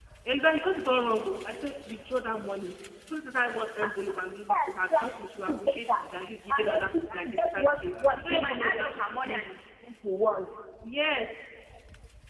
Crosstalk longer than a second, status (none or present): present